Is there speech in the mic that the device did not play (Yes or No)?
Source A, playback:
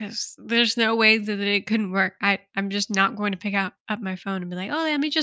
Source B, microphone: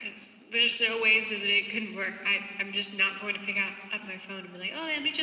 No